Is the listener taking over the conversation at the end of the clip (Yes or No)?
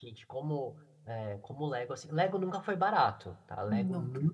No